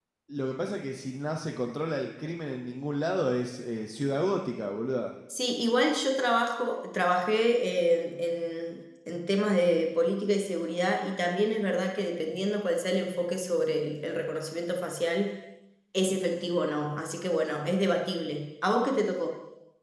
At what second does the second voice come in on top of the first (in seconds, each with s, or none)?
none